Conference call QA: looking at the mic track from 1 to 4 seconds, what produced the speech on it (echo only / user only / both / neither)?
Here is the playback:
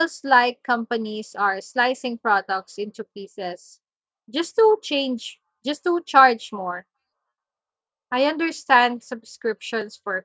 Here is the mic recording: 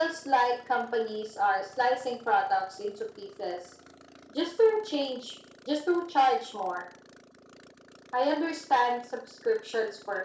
echo only